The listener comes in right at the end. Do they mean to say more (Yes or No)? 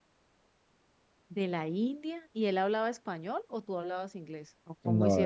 Yes